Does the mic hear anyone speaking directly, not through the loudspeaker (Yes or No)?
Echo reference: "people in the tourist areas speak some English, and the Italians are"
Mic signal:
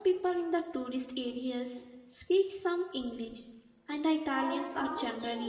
Yes